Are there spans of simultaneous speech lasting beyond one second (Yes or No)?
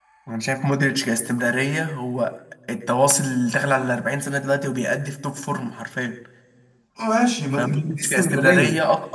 Yes